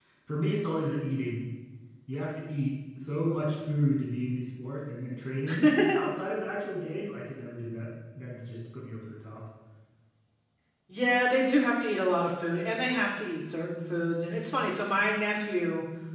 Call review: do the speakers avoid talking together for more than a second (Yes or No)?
Yes